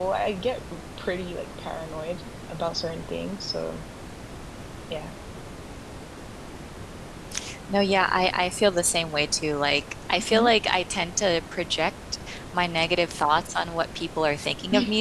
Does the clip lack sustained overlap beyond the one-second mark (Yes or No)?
Yes